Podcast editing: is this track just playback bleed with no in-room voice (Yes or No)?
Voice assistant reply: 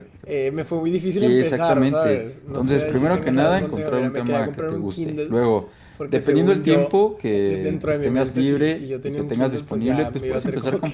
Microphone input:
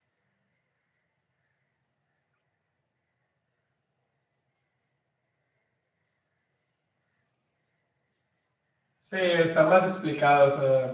No